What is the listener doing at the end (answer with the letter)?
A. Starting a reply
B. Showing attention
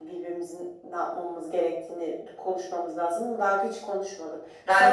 A